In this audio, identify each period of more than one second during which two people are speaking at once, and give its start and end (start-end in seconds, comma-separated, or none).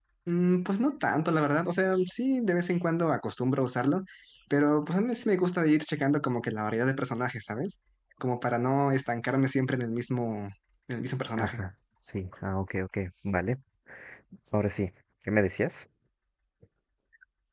none